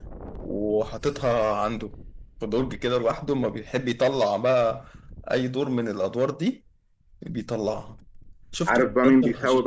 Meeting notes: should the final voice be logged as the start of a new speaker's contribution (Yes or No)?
Yes